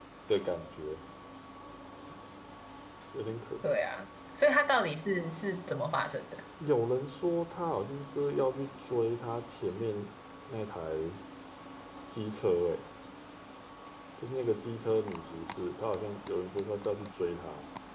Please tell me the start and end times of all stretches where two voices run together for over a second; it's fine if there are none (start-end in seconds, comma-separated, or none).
none